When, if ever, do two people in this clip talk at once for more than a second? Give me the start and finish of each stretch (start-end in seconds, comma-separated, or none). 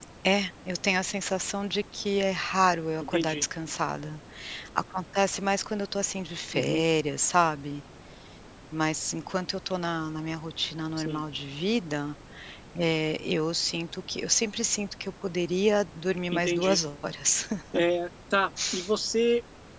none